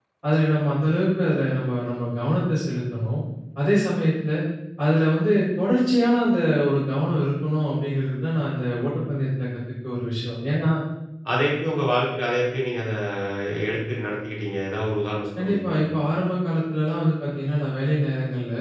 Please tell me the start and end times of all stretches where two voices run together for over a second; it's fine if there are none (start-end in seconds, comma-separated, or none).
none